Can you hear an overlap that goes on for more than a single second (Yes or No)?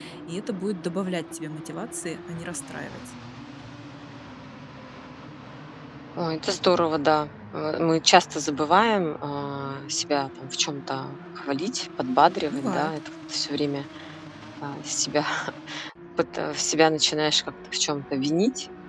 No